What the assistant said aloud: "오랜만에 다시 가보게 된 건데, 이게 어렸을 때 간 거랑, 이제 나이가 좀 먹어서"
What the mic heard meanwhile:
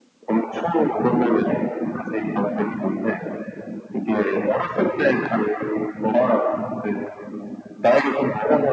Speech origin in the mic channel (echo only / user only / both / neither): echo only